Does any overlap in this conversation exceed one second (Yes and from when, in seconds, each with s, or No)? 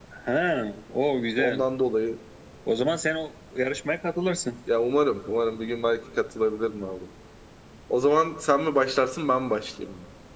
No